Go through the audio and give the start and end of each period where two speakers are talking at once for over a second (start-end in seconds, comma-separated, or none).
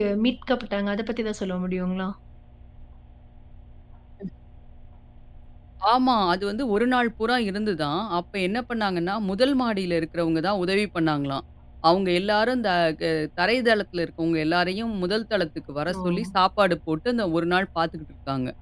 none